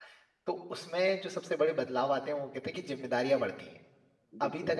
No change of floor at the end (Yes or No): Yes